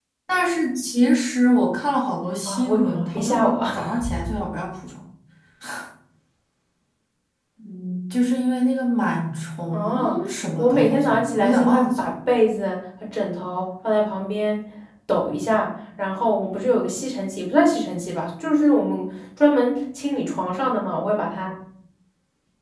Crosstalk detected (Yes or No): Yes